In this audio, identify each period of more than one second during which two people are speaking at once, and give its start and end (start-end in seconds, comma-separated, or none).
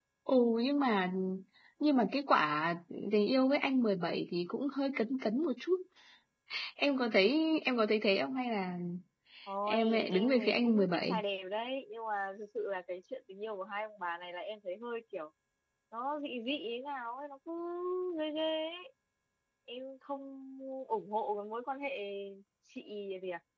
9.7-11.2